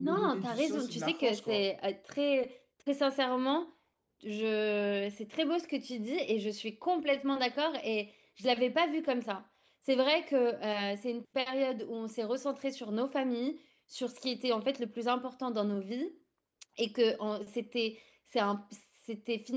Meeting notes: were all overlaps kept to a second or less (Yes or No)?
No